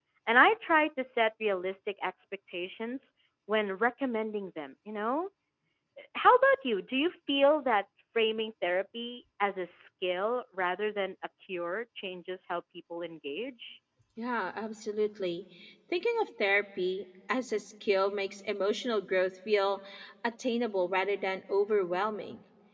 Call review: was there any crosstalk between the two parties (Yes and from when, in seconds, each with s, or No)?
No